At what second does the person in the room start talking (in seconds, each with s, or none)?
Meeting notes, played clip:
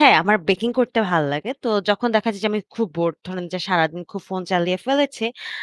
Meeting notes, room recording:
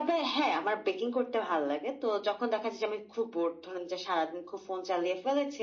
none